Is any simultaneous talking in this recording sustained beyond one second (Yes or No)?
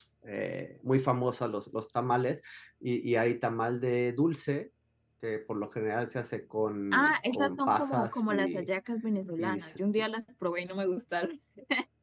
Yes